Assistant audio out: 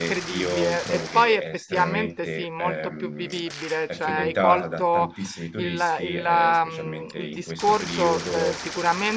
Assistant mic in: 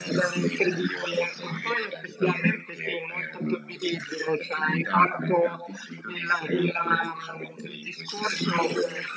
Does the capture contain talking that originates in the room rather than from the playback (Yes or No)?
No